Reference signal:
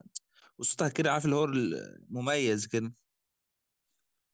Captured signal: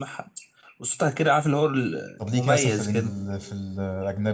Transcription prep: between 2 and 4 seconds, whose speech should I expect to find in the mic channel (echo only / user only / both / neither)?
both